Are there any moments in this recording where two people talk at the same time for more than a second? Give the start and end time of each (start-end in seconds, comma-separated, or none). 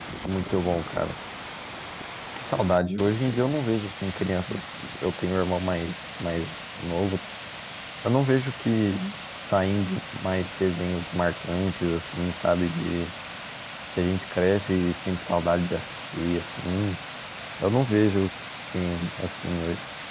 none